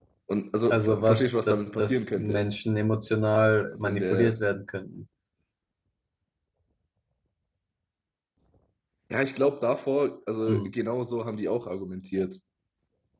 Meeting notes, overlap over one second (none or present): present